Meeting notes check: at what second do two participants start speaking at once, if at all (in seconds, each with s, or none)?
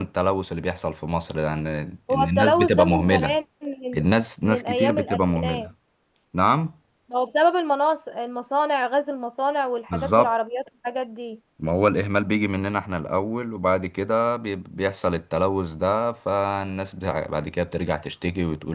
2.1 s